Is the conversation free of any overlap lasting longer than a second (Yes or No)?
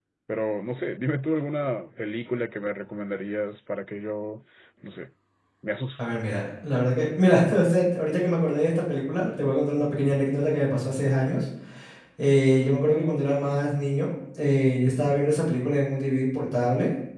Yes